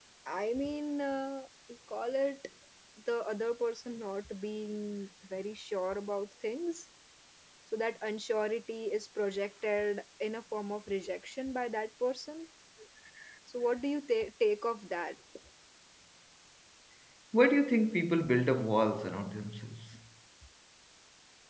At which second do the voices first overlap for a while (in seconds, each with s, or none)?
none